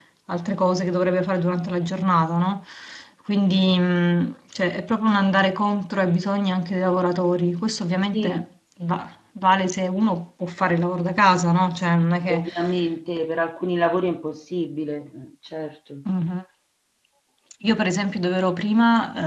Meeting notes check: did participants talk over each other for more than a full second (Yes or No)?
No